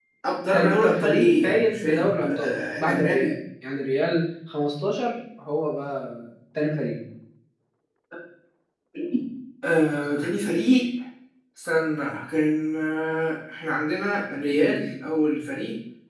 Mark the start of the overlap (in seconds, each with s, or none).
0.5 s